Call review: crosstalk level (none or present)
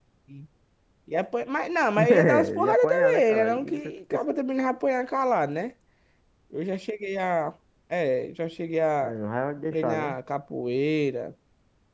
present